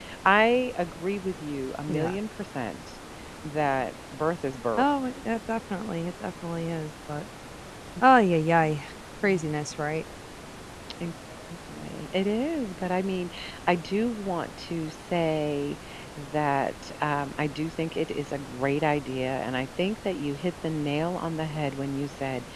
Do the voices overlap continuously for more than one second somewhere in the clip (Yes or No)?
No